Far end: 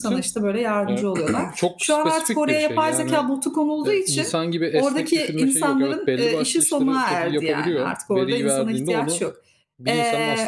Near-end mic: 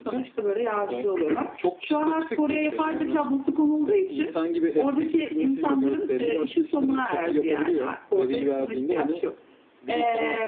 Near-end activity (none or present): none